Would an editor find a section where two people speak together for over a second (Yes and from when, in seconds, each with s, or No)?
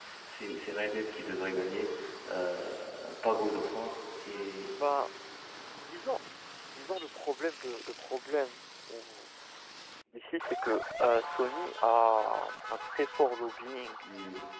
No